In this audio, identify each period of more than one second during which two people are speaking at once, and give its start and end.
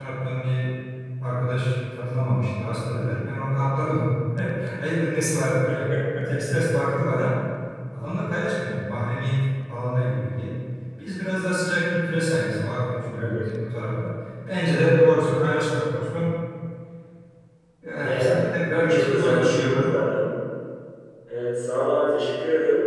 18.0-19.9

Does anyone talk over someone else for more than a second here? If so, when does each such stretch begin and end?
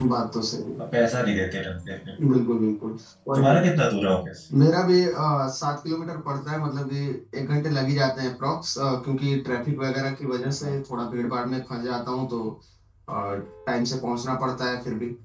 none

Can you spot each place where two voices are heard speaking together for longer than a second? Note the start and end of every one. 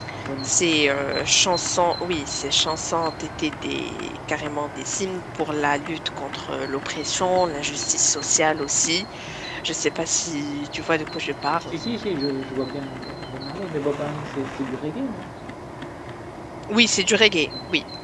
none

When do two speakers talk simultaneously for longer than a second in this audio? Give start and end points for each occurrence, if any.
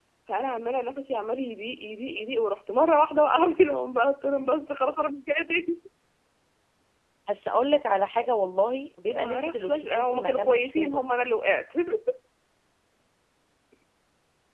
9.1-11.0

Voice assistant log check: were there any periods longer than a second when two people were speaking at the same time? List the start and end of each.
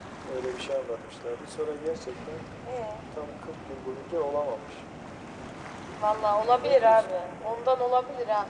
6.3-7.7

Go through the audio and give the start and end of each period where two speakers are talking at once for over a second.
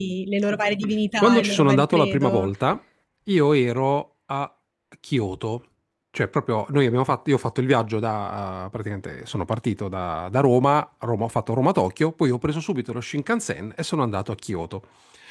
1.2-2.5

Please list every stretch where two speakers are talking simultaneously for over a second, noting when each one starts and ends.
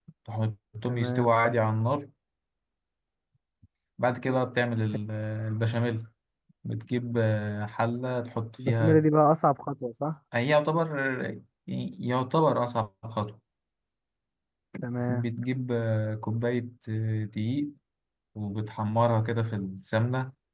none

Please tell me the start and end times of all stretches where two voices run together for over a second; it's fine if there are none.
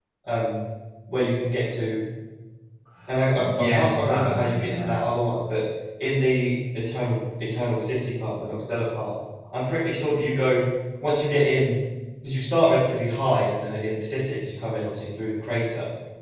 3.4-4.9

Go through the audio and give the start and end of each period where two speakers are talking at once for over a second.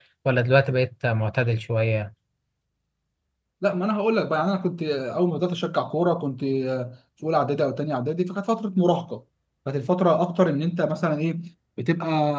none

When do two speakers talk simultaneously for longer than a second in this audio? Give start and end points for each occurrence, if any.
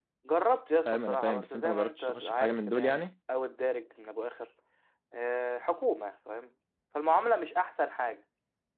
0.8-3.1

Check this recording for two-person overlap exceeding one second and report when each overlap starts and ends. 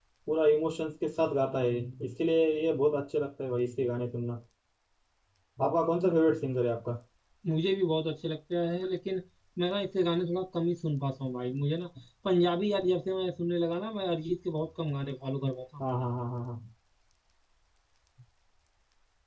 none

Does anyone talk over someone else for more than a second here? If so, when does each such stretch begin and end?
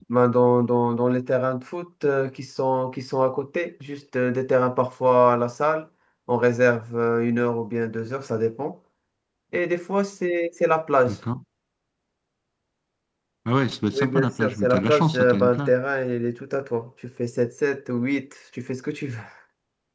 13.9-15.7

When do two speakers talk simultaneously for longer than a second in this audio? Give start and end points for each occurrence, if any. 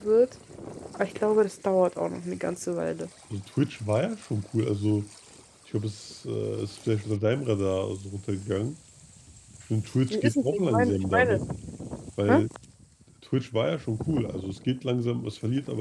10.1-11.4

